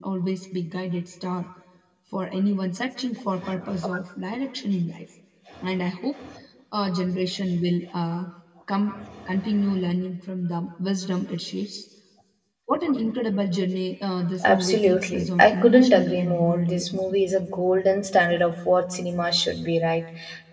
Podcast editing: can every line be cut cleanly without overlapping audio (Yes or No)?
No